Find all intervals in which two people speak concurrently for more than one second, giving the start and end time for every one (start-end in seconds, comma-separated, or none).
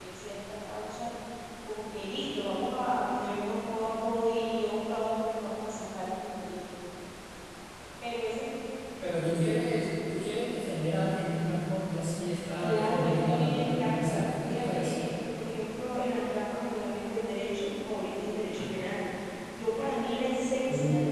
12.6-14.9